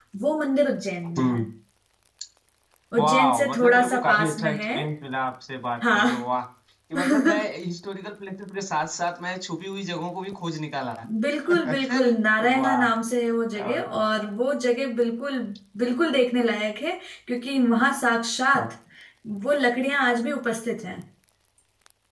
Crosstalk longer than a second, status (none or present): present